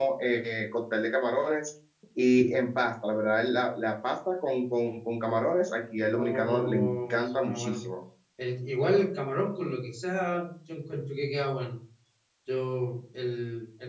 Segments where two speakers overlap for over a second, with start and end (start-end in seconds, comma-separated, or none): 6.2-7.8